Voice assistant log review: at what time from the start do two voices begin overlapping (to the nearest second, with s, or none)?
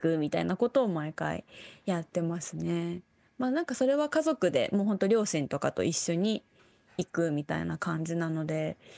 none